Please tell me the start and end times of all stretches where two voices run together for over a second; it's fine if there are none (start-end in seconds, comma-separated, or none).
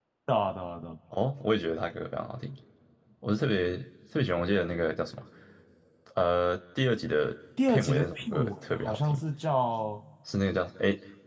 7.7-9.2